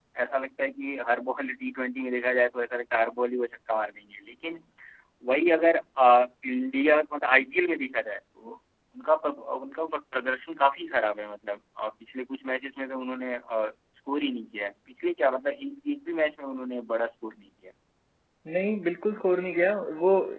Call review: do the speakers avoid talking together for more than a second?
Yes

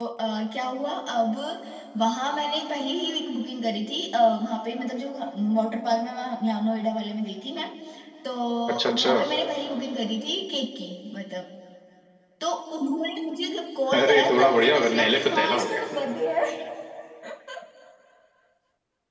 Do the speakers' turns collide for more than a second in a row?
Yes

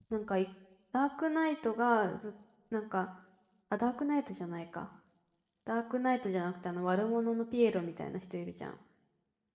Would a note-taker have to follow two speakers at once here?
No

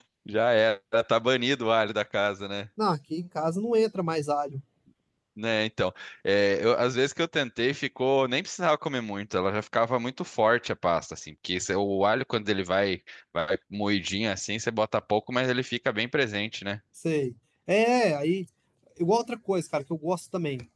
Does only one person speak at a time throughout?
Yes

